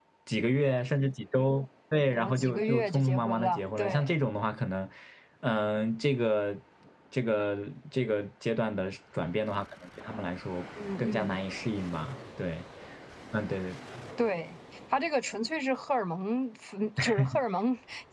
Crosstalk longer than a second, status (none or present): present